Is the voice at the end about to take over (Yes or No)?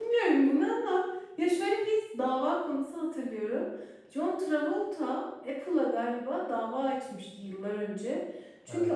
No